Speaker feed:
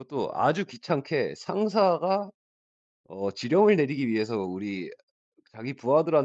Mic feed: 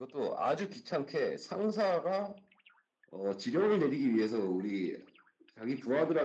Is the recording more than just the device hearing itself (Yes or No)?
No